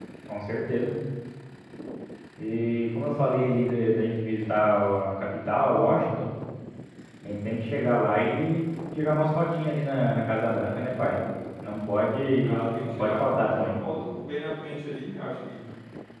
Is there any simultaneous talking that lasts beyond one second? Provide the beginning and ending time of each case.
12.4-13.7

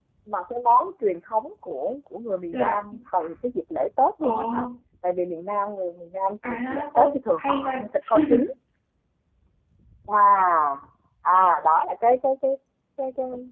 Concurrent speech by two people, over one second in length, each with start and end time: 6.5-7.9

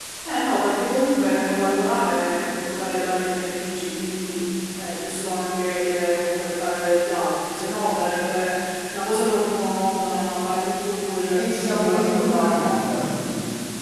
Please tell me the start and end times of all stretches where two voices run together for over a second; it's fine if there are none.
11.3-12.8

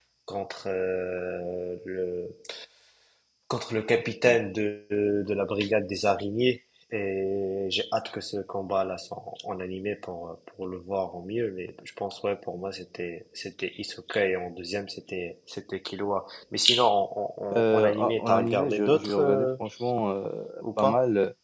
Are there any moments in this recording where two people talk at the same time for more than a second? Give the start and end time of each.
17.6-19.5

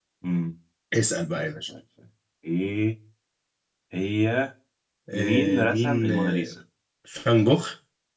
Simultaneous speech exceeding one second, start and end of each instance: 5.1-6.5

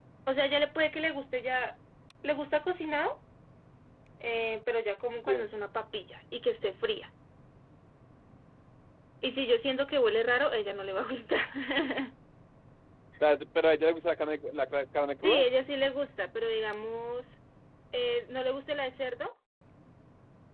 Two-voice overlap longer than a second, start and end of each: none

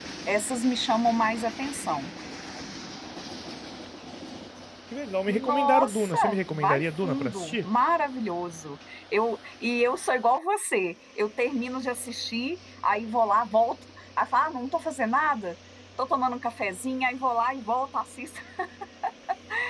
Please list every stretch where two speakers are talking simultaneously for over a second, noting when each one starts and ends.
5.3-7.7

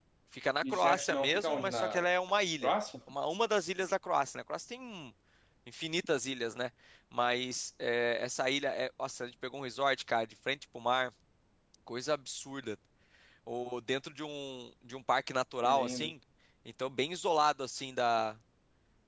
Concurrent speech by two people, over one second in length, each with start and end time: 0.6-2.0

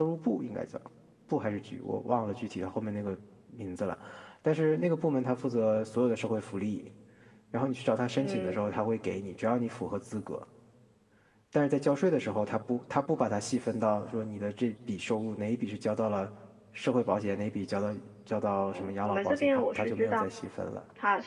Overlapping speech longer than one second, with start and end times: 18.7-20.2

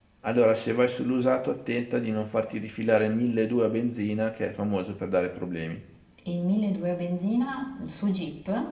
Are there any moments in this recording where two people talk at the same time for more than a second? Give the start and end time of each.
none

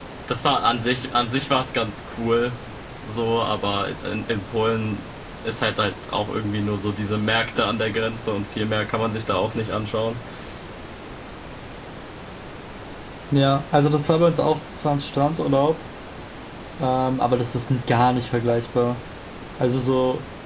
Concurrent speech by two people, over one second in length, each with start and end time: none

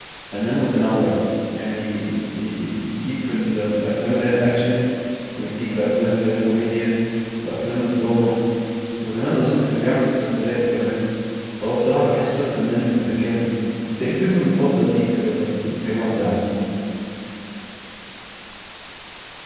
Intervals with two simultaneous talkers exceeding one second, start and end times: none

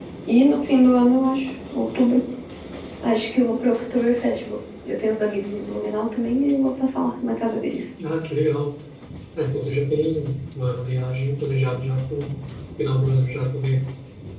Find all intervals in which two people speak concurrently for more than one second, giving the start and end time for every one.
none

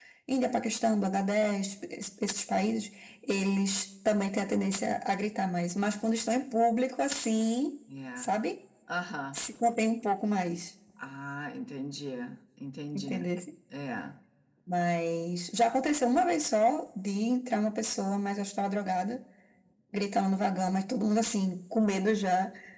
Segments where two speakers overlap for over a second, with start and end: none

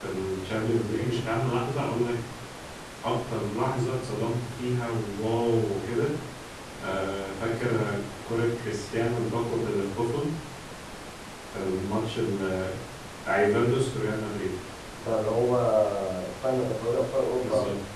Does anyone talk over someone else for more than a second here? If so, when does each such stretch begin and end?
none

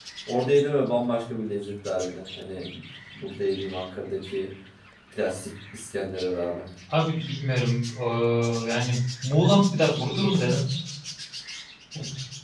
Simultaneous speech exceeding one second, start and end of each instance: none

